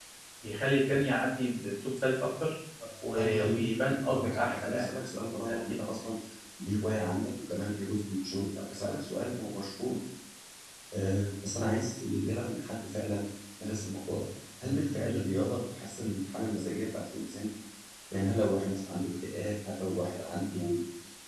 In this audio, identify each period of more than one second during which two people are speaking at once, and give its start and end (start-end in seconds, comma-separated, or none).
3.1-4.9